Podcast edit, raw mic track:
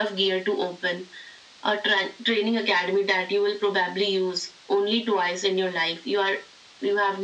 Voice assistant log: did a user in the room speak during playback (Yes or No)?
No